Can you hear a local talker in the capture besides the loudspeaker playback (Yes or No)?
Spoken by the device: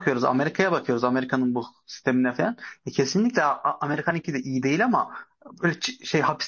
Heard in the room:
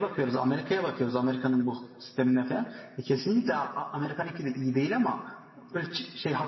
No